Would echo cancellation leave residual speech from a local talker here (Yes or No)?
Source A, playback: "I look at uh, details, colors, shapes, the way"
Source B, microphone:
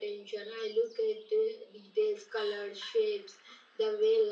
No